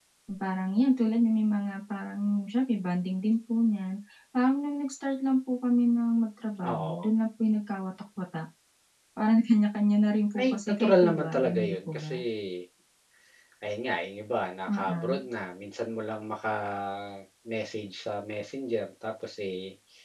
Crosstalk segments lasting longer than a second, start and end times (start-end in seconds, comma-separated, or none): 10.4-12.2